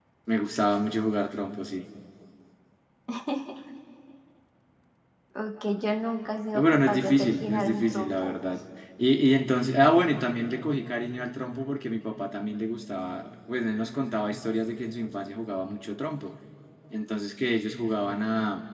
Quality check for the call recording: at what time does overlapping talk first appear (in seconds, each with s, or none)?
6.5 s